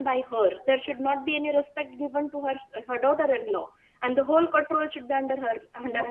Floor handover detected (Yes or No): Yes